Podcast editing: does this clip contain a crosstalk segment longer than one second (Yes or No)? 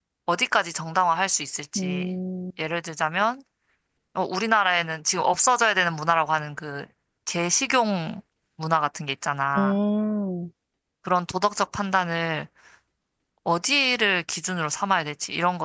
No